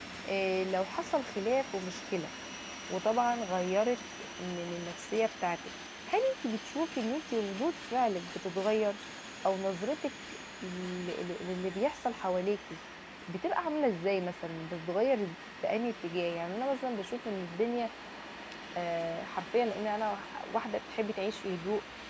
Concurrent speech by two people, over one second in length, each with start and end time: none

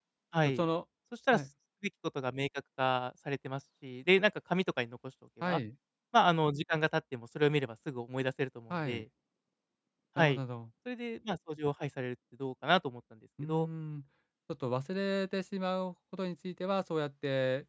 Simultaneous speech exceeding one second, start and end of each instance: none

